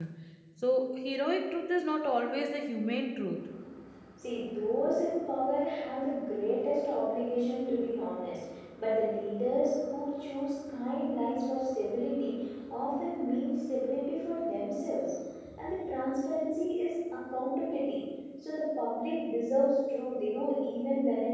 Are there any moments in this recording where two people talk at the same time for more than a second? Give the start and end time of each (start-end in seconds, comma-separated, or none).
none